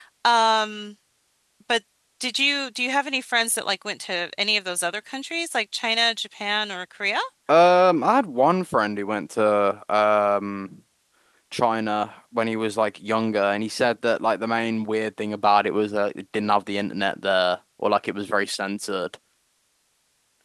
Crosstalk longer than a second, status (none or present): none